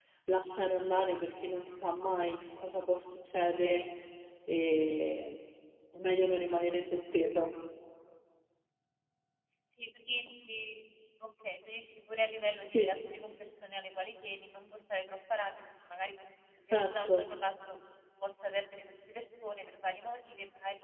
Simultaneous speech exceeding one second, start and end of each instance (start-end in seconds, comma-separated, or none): none